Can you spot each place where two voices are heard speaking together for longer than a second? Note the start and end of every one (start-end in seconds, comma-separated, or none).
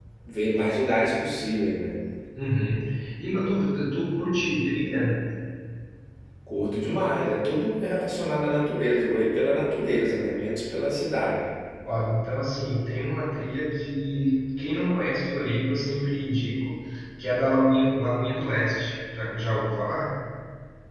none